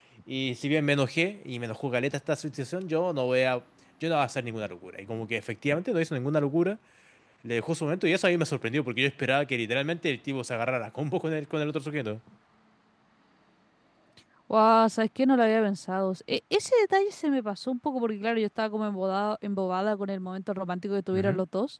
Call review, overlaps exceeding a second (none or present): none